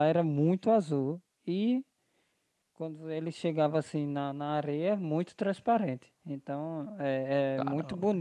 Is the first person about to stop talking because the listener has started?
No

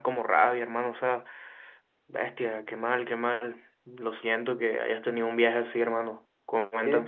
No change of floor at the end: No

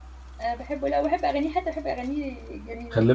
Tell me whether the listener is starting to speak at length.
Yes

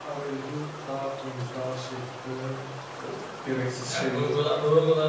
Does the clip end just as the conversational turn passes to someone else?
Yes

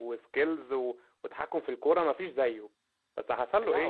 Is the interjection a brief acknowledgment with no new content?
Yes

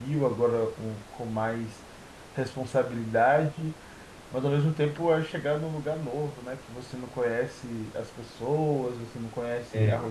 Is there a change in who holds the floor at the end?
No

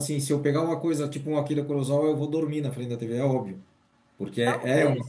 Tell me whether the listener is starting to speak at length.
Yes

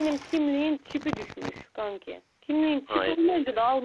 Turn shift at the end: No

